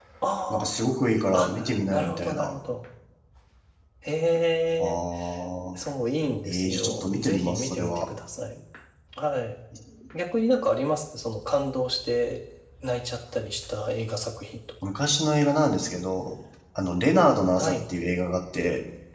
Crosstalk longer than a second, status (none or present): present